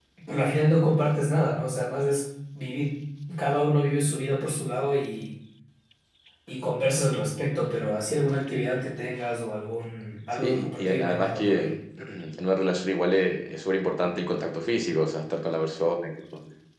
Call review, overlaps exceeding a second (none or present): present